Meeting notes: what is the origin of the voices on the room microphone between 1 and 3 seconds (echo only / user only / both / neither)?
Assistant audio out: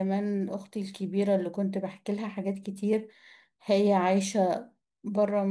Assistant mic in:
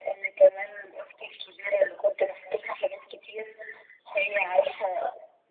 echo only